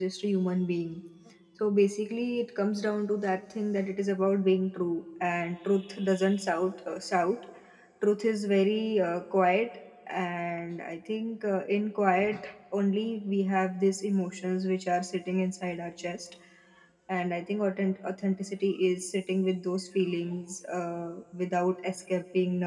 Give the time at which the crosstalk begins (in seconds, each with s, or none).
none